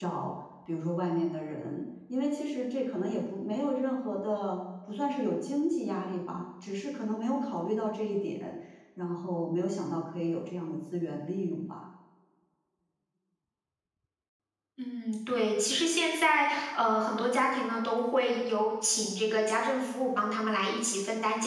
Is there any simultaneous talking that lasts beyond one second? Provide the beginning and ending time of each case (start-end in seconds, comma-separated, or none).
none